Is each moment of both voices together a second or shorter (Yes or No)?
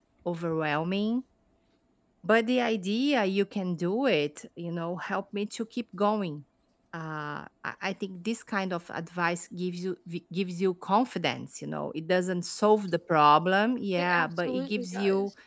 No